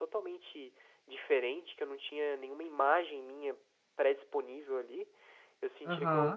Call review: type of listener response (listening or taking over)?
listening